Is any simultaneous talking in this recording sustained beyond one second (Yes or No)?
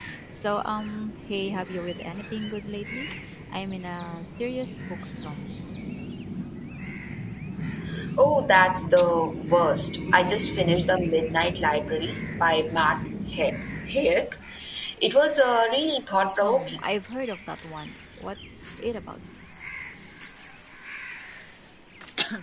No